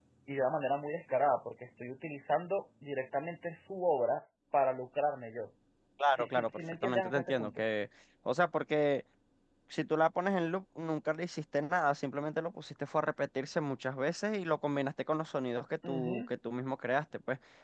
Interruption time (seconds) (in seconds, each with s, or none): 6.1 s